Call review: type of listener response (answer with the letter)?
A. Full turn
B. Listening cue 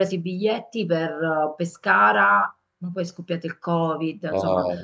B